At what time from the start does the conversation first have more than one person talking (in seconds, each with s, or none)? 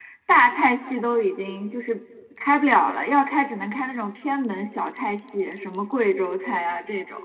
none